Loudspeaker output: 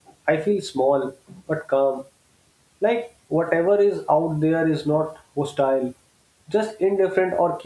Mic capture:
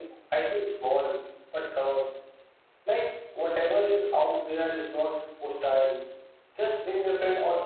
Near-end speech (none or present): none